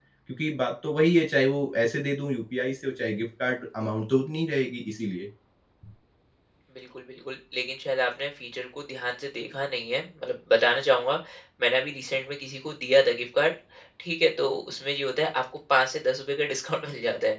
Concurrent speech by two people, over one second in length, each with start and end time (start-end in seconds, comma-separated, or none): none